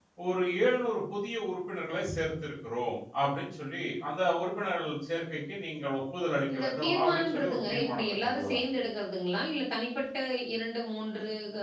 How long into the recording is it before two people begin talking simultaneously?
6 s

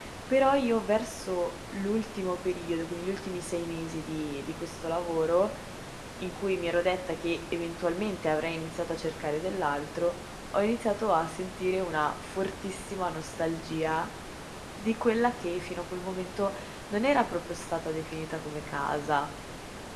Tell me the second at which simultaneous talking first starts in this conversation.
none

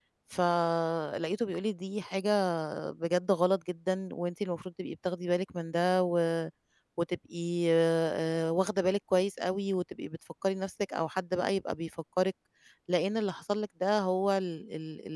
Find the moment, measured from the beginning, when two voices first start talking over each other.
none

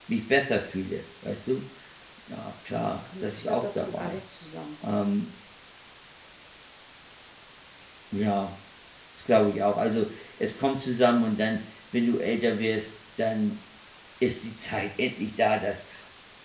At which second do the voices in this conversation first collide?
3 s

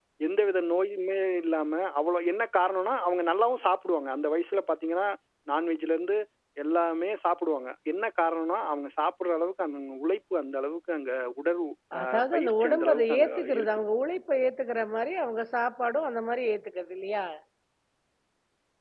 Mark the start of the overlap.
12 s

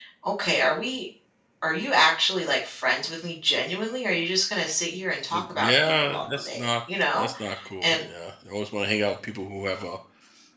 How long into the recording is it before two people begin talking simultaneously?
5 s

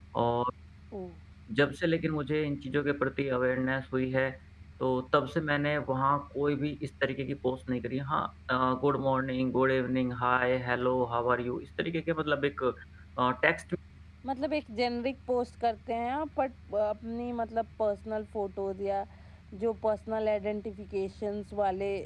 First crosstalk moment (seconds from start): none

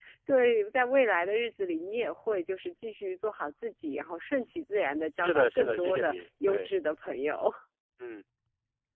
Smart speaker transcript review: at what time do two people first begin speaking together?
5 s

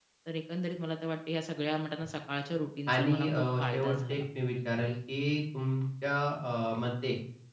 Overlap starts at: 3 s

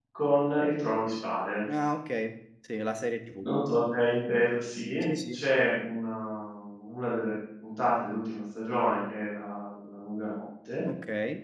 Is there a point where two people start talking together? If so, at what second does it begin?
none

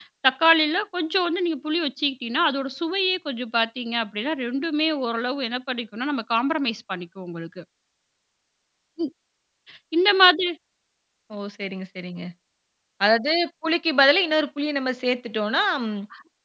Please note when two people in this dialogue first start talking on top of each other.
none

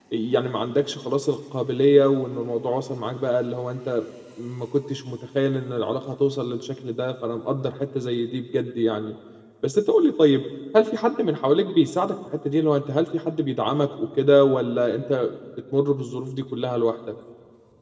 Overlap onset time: none

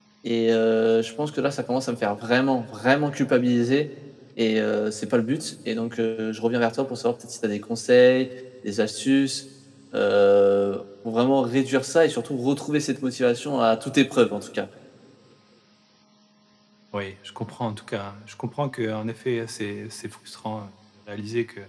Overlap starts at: none

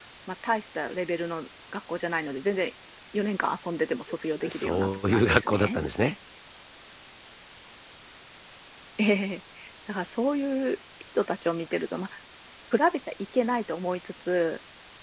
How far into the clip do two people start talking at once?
4 s

